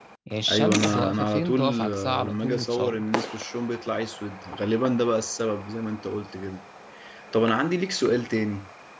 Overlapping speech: Yes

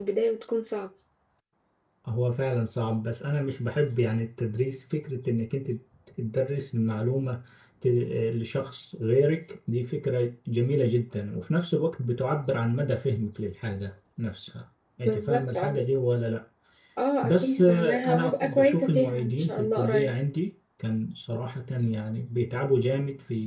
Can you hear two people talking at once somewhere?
Yes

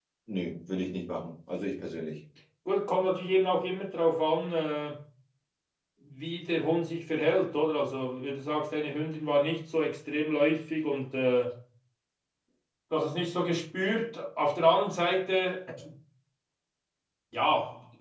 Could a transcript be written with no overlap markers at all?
Yes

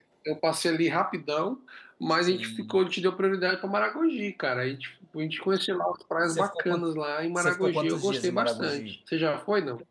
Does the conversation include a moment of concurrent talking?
Yes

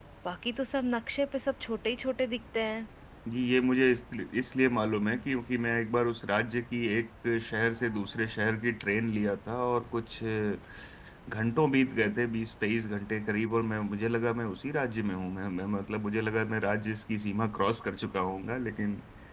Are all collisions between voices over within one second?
Yes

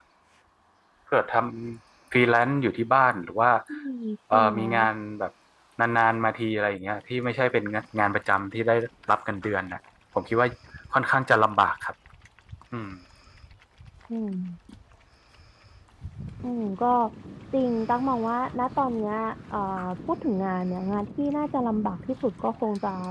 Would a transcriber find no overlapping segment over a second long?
Yes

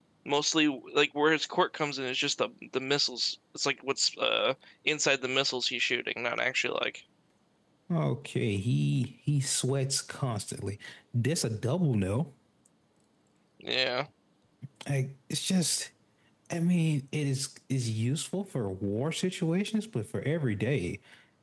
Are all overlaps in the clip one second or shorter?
Yes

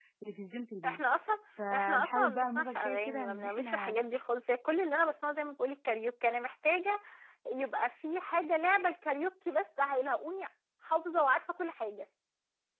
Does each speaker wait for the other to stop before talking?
No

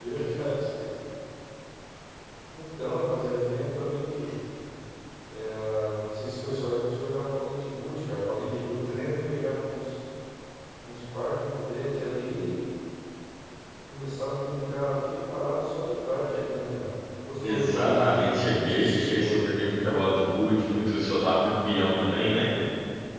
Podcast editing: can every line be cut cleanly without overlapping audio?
No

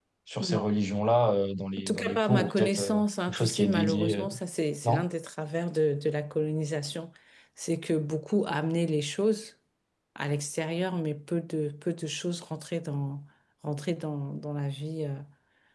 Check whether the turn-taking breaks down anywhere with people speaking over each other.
Yes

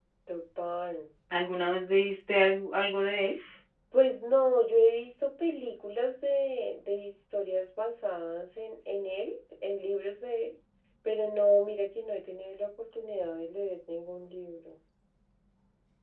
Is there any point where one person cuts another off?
No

